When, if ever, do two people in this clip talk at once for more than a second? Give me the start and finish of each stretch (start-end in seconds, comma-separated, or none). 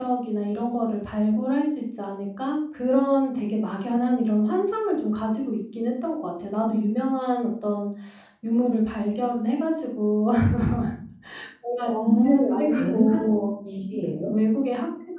11.9-13.3